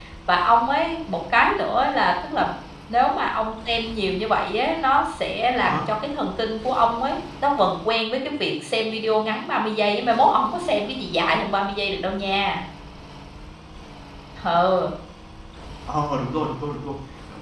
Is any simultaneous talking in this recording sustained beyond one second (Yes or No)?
No